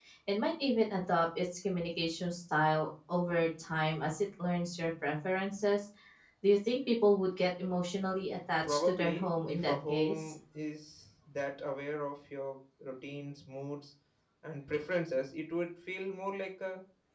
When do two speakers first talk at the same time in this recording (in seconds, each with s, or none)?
8.6 s